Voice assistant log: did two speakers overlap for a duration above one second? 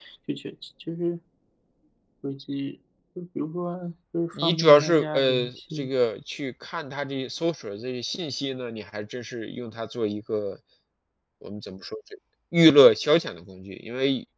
Yes, from 4.3 s

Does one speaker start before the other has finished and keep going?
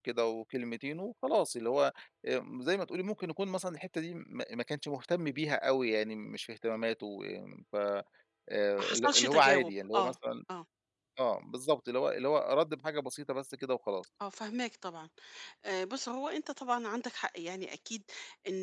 Yes, from 8.8 s

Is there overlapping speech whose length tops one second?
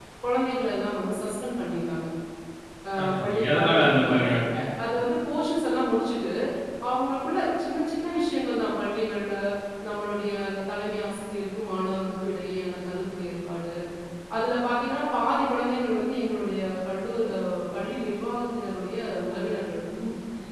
Yes, from 3.0 s

